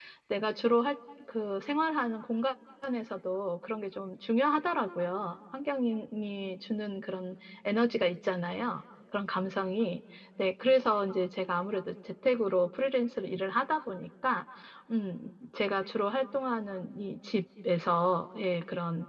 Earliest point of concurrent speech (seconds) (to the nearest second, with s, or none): none